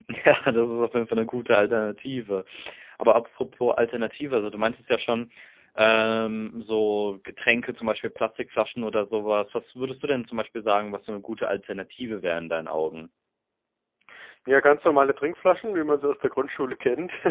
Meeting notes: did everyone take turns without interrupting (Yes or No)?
Yes